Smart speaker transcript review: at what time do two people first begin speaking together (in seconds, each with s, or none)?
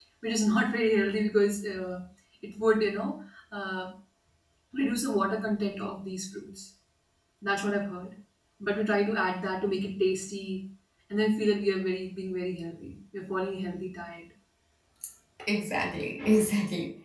none